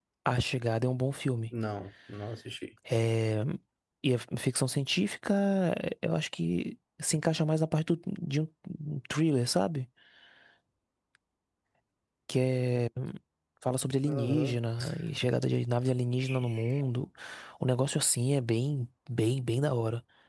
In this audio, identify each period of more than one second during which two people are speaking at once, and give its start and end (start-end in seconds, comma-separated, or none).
none